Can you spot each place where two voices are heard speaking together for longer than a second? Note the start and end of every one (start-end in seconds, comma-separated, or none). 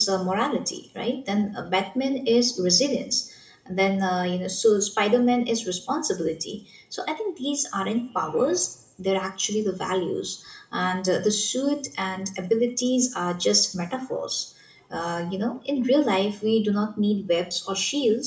none